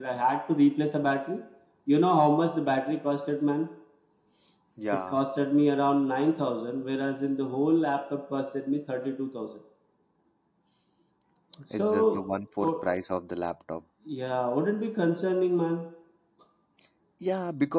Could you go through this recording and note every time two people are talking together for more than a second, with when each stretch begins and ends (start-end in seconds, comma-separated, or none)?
none